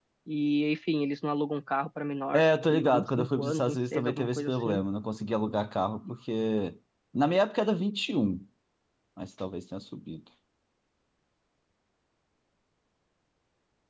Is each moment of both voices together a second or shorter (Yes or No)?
No